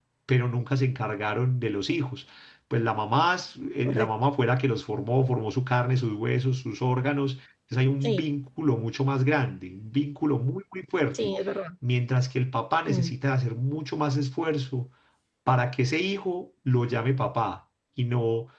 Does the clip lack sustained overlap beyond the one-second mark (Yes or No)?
Yes